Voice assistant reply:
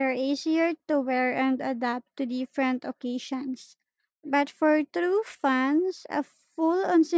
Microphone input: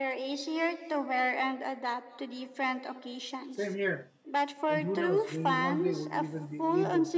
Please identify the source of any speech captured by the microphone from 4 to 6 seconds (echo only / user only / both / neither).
both